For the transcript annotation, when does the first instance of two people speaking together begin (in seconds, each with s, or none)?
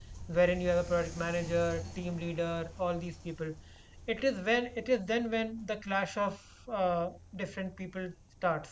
none